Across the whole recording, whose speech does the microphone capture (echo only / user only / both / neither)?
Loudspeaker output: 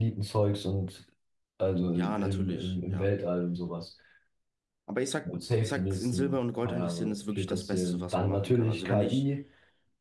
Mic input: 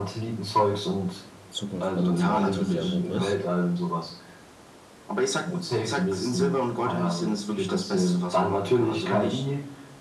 both